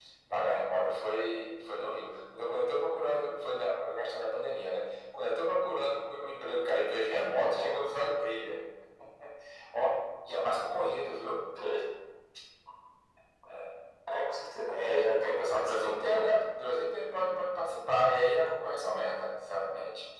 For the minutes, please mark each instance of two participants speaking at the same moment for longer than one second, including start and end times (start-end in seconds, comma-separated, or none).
14.7-16.3